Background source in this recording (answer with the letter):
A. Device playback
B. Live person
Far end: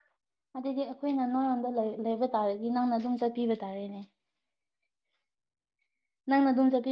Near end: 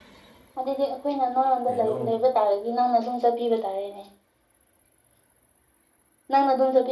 B